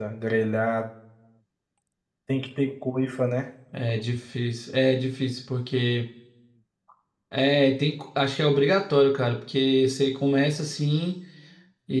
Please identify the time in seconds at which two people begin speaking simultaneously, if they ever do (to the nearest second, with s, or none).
none